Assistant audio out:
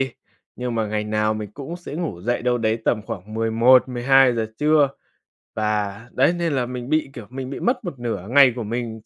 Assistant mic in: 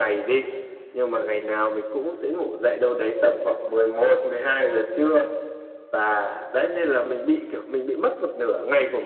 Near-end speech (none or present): none